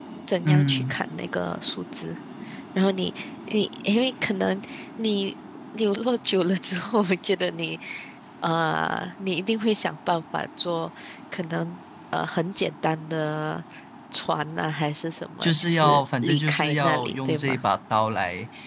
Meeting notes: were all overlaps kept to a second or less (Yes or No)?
No